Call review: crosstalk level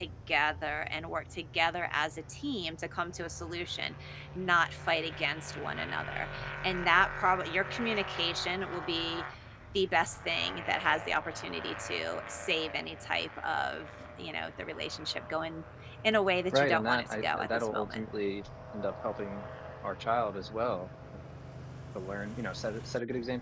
present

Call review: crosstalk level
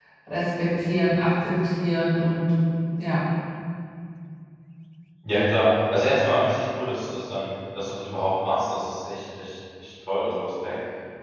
none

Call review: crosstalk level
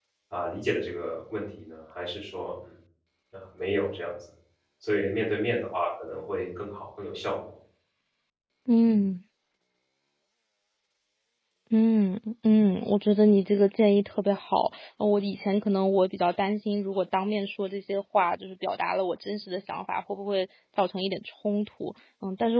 none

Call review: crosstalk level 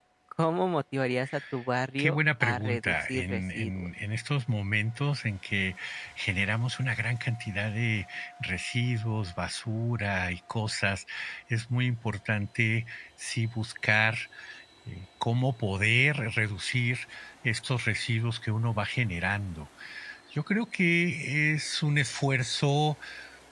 present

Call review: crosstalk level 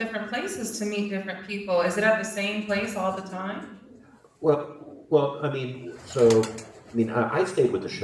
none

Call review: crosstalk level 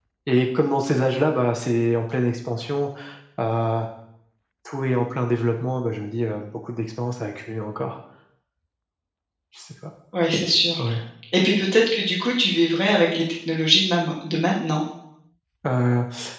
none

